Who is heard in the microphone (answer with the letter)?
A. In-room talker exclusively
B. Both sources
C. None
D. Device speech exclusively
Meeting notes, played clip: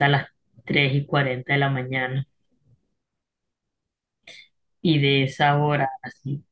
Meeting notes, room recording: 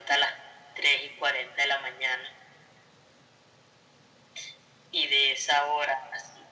D